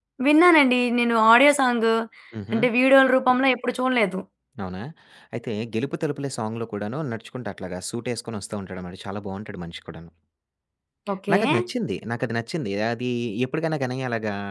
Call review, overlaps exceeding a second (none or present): none